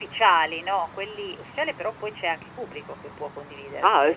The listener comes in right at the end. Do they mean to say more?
Yes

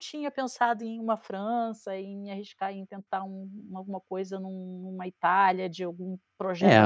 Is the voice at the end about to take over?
Yes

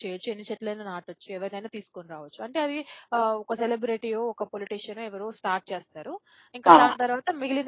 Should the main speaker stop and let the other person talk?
No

